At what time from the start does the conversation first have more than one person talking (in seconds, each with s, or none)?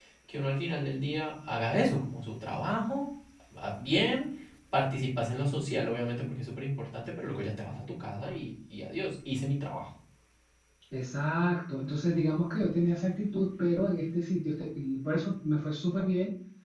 none